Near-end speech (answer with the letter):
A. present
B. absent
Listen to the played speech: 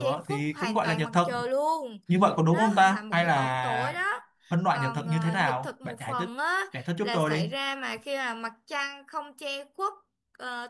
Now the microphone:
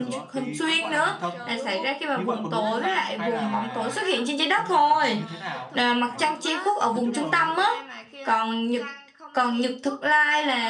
A